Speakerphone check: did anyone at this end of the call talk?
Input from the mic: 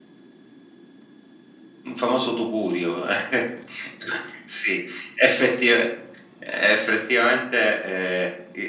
Yes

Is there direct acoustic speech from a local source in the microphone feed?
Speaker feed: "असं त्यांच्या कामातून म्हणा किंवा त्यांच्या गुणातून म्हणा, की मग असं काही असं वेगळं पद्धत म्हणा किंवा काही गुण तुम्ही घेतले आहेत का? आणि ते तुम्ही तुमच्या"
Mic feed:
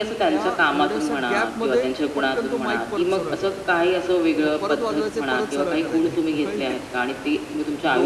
Yes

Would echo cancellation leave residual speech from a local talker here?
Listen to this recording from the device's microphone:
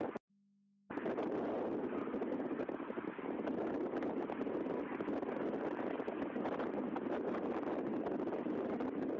No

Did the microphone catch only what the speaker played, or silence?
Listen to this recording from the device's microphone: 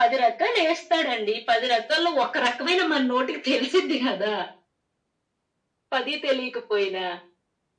Yes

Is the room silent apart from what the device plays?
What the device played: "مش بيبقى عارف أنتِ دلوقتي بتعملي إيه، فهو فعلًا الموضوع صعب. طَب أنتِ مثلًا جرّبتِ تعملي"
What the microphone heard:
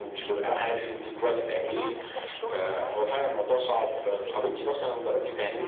No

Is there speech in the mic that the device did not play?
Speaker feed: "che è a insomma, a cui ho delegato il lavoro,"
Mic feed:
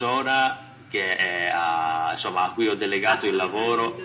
Yes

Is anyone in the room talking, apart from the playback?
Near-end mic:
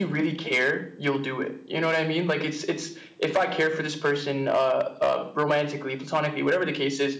No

